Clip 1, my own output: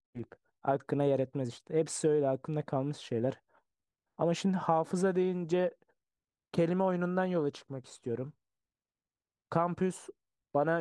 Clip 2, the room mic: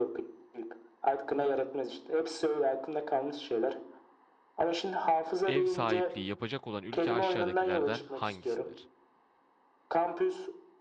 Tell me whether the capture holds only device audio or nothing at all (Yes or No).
No